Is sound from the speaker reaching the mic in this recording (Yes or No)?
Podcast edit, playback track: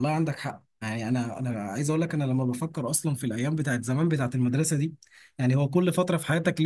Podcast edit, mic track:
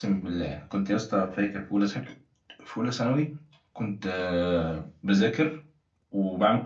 No